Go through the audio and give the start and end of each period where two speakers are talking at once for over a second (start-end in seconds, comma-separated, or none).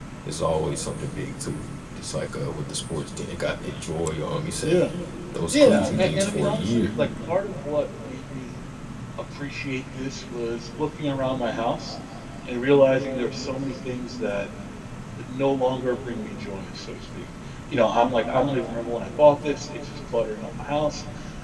5.5-6.9